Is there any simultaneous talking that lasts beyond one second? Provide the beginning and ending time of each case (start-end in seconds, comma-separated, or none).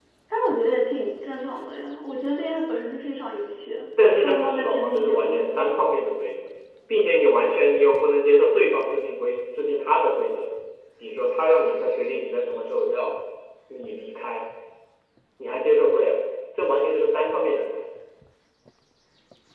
4.1-5.7